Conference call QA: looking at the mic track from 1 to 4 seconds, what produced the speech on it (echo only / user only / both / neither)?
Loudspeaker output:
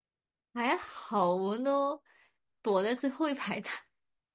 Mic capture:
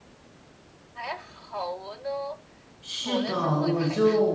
both